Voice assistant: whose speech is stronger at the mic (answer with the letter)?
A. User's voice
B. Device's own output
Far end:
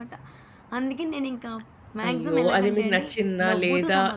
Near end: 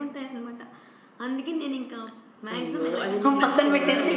A